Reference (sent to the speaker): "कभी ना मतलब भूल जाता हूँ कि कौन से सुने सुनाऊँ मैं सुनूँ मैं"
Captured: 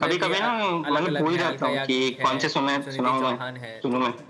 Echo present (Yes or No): Yes